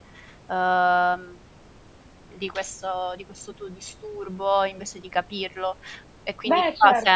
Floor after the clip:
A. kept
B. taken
A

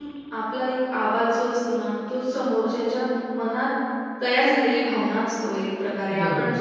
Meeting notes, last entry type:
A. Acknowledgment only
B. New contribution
A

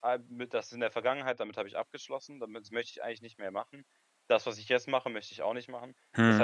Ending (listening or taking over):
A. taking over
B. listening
B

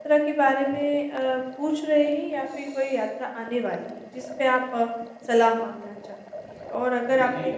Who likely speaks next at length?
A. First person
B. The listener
A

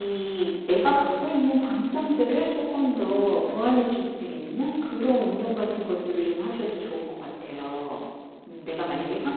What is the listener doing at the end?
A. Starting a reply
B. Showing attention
B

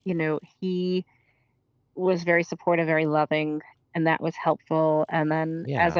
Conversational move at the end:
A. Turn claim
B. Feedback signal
B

